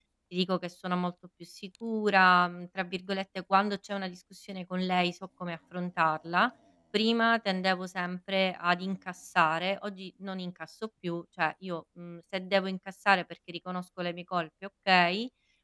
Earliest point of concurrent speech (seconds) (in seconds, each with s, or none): none